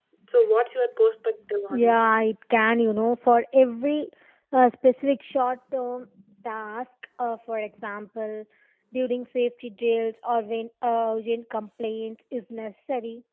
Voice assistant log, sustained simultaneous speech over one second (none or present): none